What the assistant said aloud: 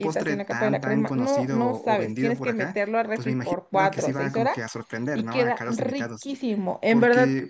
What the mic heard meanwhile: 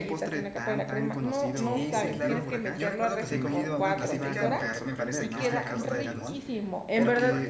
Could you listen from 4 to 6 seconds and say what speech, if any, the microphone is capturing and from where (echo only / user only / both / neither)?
both